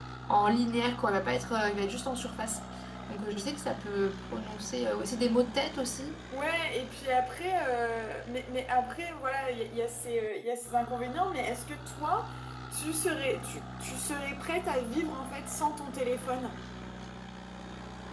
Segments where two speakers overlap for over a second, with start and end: none

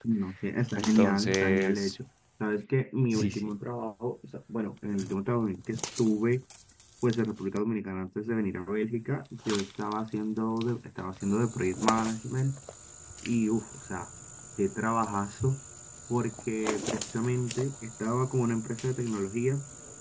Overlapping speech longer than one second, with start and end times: 0.8-2.0

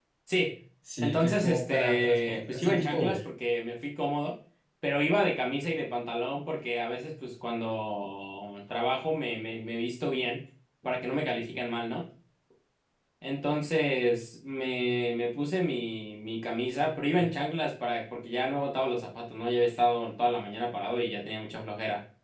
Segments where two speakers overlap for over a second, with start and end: 1.0-3.2

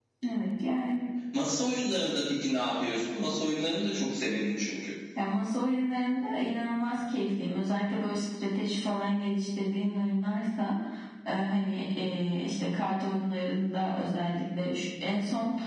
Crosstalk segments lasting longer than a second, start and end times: none

